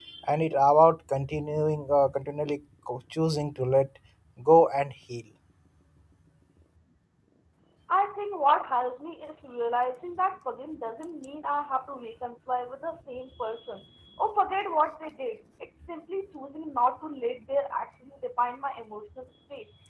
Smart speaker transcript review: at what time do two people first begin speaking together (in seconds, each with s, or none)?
none